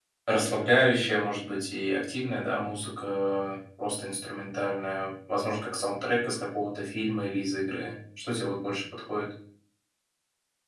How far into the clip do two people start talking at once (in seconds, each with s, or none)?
none